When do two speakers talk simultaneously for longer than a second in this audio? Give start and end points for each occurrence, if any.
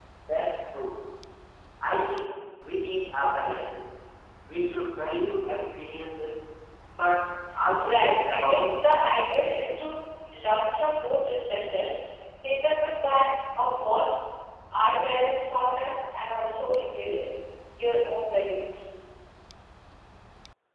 7.8-9.2

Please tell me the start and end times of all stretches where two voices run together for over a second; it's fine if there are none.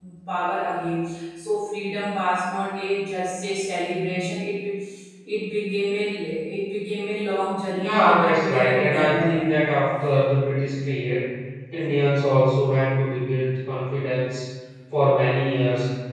7.7-9.5

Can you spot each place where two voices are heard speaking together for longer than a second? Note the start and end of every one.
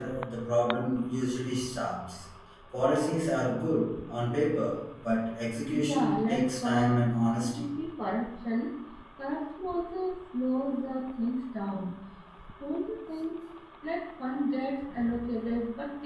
5.7-7.0

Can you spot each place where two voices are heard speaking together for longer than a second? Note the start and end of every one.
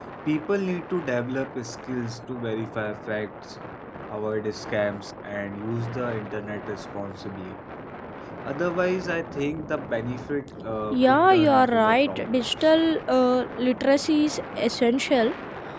11.1-12.4

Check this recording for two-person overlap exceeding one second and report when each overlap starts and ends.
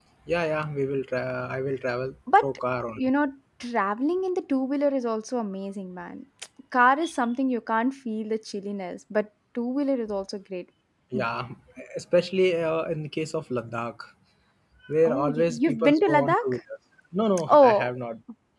15.1-16.4

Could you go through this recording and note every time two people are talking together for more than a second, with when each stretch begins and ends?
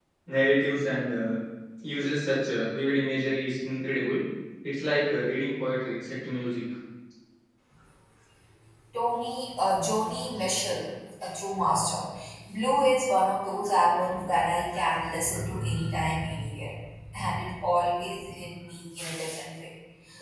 none

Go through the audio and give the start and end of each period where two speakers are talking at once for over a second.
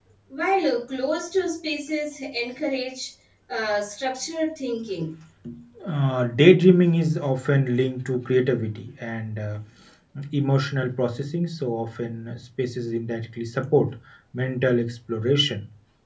none

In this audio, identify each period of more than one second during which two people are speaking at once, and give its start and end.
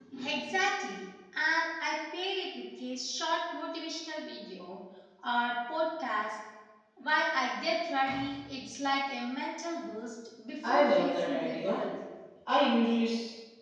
10.6-11.8

